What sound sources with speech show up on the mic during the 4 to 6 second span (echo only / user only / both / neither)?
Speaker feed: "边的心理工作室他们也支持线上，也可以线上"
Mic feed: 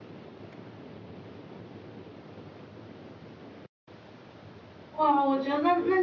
user only